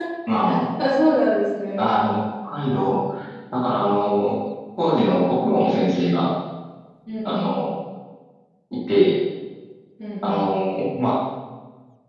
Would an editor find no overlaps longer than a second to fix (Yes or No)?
Yes